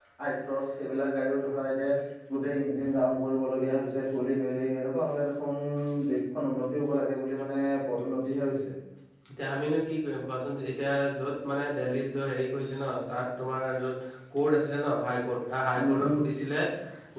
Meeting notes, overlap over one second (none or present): none